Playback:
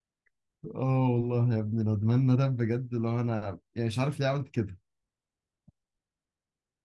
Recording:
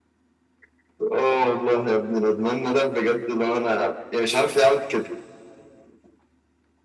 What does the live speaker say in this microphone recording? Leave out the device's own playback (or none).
none